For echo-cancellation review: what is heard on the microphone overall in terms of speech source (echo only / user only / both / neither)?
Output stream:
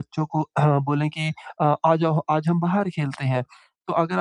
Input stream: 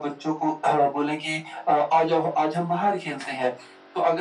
echo only